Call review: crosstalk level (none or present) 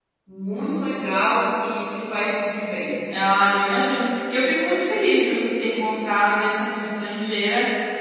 none